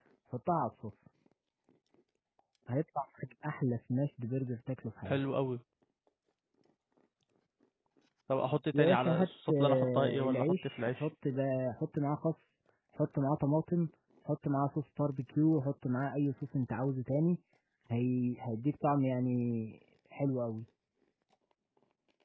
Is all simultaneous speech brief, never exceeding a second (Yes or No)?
No